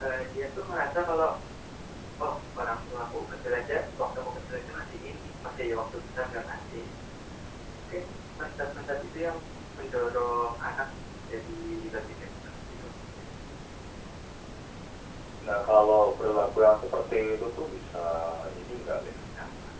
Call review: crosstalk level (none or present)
none